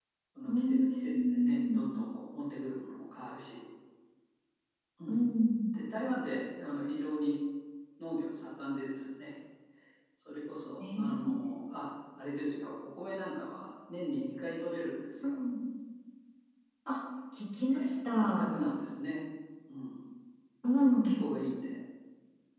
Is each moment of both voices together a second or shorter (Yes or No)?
No